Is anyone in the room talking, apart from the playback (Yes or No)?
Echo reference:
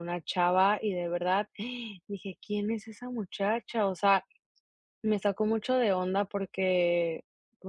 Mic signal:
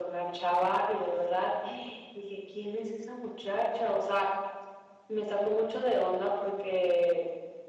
No